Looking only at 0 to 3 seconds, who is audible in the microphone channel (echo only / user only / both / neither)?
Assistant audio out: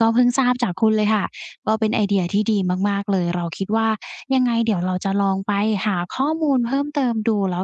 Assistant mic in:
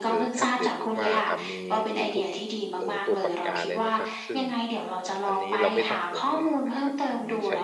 both